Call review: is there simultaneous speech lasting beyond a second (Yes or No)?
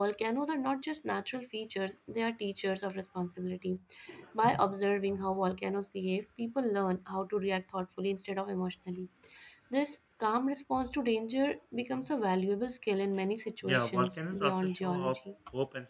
Yes